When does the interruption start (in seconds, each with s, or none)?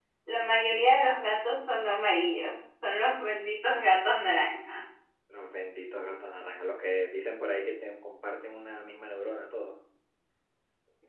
none